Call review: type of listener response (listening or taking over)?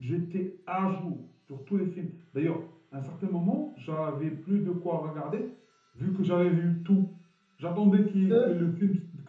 listening